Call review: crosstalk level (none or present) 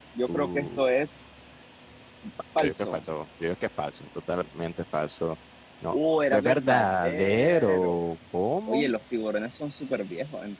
present